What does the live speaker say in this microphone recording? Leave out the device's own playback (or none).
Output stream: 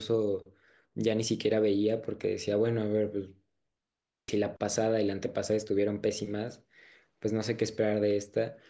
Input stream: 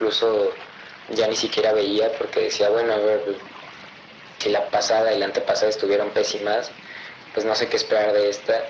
none